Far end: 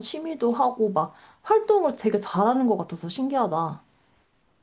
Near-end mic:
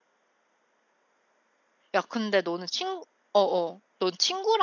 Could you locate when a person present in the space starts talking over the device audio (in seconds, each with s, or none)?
1.9 s